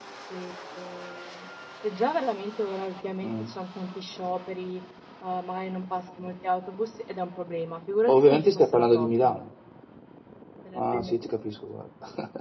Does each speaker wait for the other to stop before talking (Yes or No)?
No